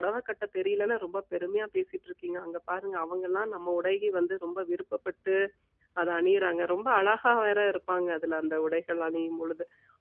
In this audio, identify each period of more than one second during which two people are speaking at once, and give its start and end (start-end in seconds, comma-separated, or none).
none